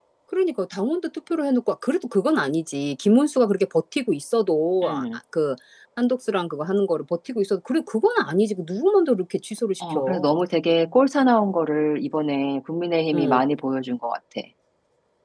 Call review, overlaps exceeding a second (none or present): none